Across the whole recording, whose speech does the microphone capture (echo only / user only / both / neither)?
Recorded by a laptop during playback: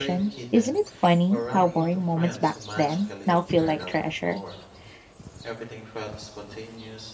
both